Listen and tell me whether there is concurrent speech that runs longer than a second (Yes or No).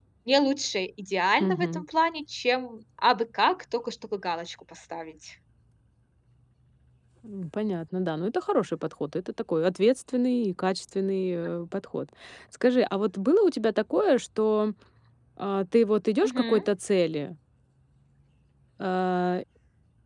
No